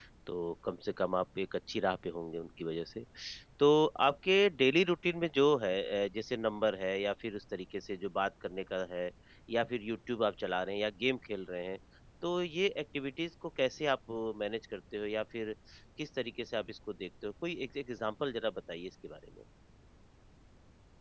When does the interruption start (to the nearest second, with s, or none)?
none